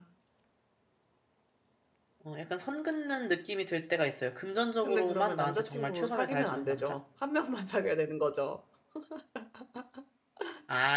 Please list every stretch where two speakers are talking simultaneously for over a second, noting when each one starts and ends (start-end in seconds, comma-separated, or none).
4.8-7.0